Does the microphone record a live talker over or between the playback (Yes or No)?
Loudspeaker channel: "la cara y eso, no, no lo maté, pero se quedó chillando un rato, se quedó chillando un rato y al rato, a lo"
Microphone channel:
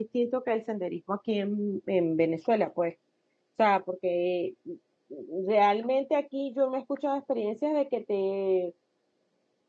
Yes